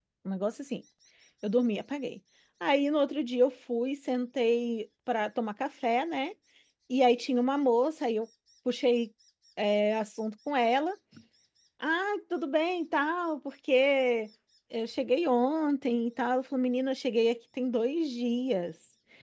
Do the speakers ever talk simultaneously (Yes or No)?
No